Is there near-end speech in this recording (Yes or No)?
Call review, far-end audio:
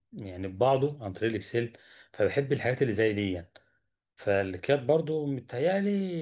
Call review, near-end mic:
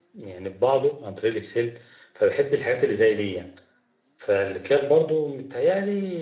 No